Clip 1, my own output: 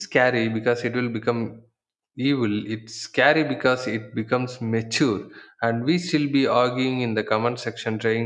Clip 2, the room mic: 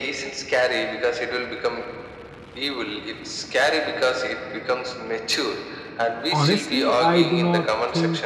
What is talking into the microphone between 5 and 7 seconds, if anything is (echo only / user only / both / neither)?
both